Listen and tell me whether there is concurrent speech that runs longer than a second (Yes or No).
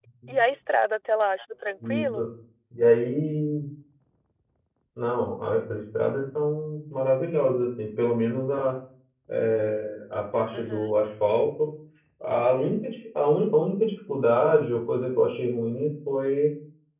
No